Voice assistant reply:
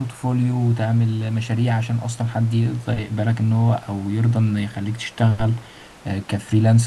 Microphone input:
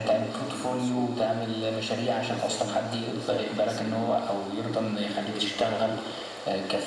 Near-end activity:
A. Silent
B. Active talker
B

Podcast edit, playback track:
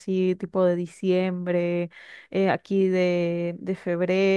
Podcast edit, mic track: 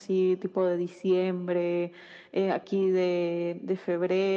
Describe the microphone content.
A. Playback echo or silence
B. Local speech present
A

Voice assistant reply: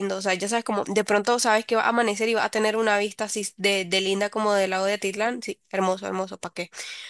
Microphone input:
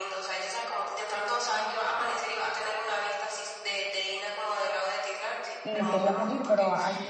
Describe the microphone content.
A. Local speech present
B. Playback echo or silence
A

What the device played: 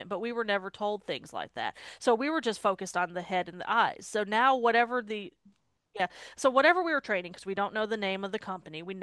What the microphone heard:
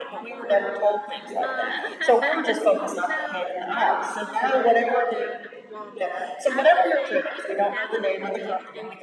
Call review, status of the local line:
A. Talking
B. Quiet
A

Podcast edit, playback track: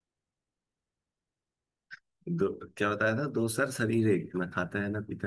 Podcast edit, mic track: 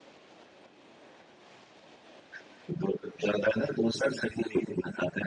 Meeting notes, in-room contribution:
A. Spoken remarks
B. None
B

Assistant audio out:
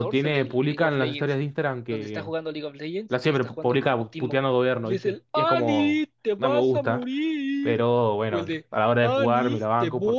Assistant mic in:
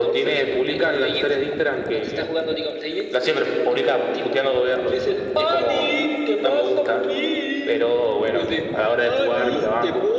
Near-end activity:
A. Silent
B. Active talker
A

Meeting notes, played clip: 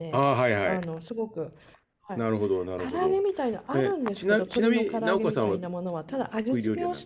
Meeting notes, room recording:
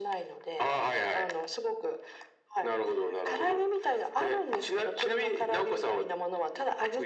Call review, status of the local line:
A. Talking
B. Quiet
B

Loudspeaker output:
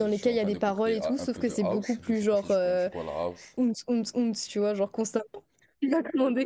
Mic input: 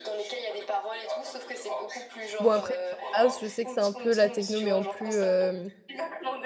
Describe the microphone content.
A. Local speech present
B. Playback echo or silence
A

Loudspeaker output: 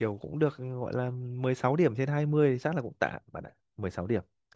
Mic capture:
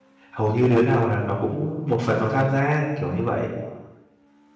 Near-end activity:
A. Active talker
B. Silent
A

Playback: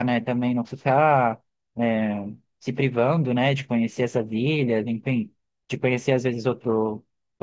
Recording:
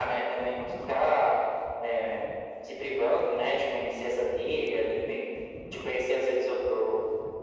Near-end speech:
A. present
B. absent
B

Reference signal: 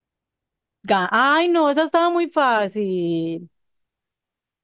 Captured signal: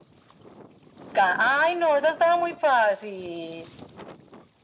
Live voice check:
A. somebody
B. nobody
B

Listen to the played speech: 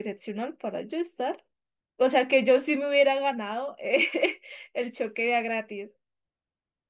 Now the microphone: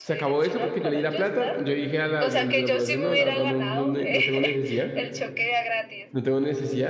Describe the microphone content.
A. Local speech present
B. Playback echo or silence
A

